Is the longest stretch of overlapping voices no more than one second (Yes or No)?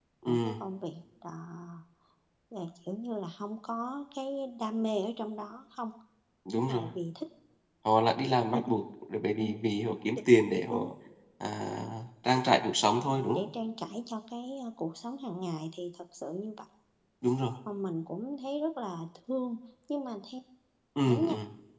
Yes